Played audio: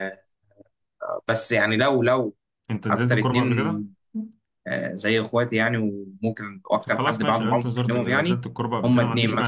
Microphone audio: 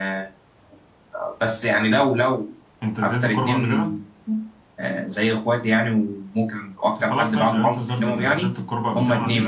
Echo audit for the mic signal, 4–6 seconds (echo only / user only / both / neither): echo only